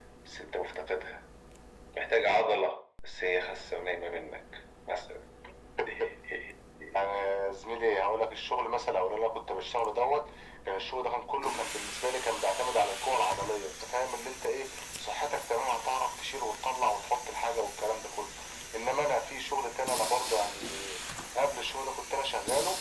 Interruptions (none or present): none